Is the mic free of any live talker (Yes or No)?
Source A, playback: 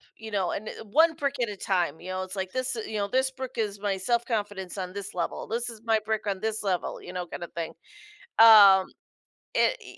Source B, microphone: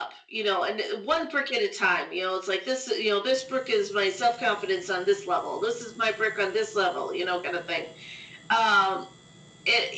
Yes